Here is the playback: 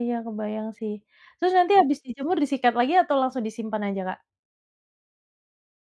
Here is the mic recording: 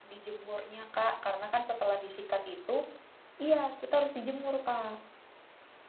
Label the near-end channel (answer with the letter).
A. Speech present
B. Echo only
A